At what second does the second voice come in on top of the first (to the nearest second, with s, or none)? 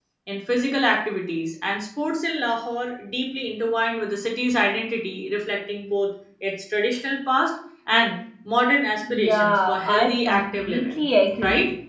9 s